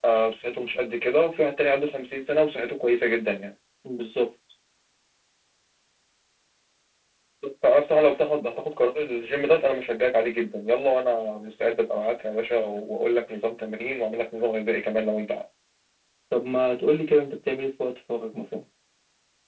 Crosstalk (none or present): none